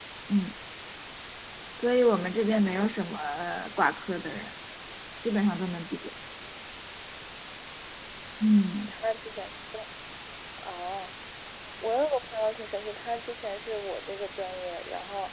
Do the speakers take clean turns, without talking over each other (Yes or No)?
Yes